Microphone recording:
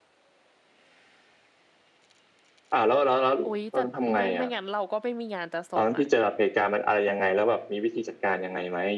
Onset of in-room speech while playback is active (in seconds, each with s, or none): 3.4 s